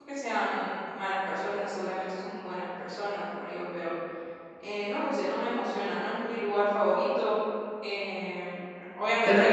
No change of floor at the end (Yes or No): Yes